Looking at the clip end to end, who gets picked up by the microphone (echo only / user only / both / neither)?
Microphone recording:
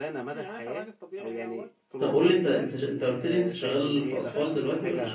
both